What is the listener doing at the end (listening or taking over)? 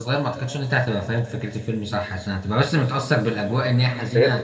taking over